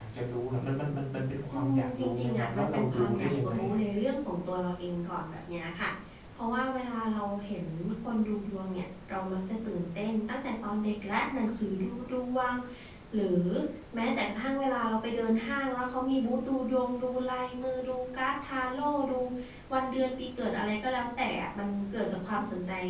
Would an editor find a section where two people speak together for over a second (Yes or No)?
Yes